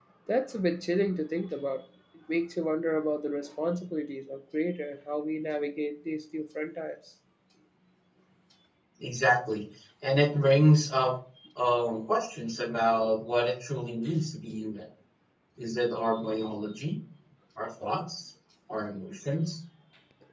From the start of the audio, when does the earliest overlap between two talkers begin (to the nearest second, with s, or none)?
none